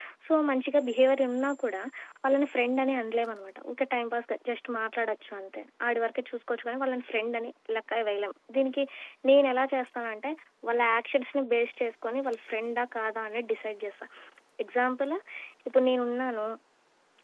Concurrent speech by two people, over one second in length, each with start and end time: none

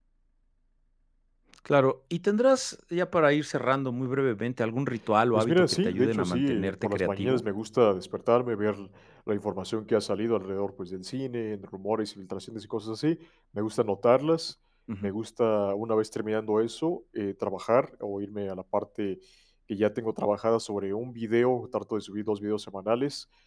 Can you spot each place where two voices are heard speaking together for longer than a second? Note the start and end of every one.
5.3-7.4

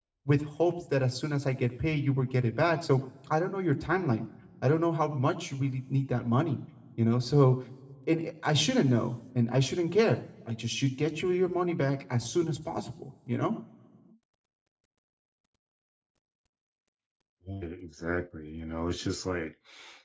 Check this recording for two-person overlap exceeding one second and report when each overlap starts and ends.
none

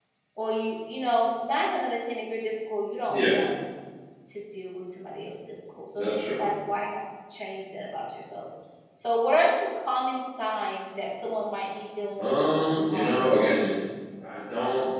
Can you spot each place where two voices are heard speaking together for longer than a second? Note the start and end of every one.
12.2-13.8

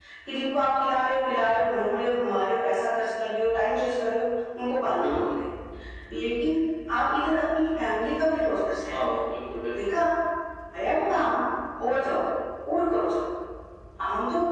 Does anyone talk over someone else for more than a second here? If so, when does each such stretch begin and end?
none

